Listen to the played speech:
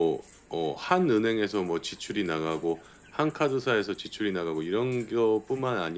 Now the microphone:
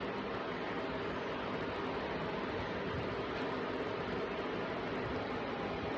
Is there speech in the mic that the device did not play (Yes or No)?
No